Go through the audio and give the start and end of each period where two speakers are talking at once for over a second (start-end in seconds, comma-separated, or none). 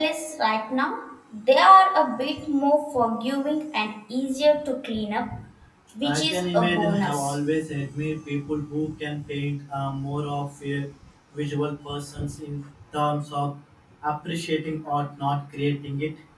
6.0-7.4